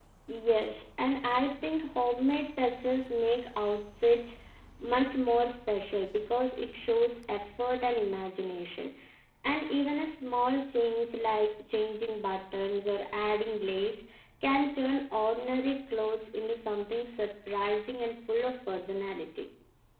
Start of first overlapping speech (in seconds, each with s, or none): none